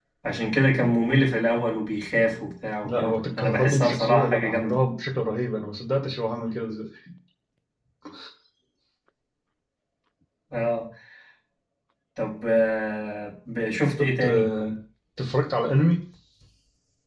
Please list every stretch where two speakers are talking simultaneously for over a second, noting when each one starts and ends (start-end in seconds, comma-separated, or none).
2.8-4.8